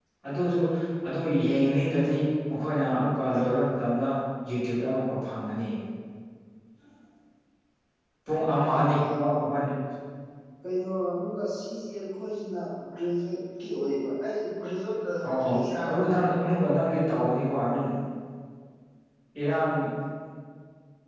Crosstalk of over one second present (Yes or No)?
No